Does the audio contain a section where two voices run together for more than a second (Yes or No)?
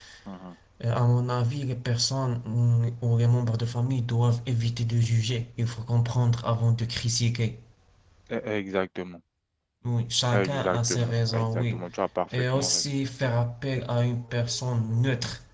Yes